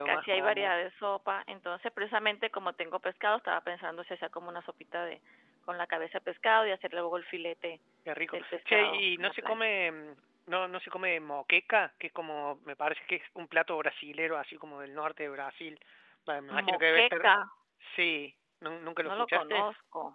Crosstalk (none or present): present